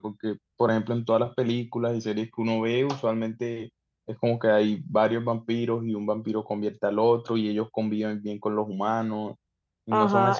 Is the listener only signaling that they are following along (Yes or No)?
No